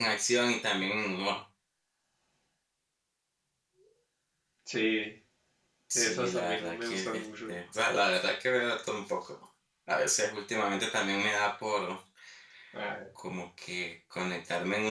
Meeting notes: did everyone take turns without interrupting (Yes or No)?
No